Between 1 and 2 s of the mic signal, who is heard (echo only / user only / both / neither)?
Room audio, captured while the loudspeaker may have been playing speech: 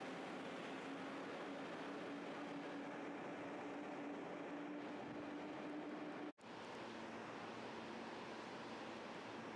neither